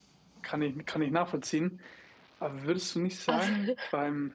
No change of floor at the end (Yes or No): Yes